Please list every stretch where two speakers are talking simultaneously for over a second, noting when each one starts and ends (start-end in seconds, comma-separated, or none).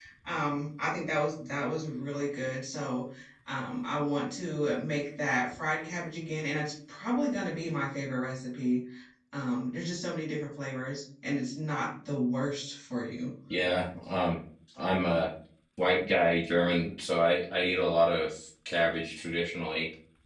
none